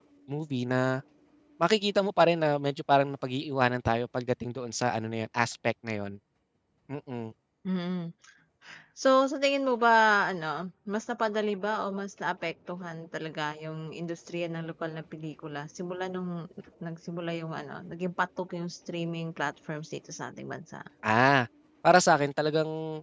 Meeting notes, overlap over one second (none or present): none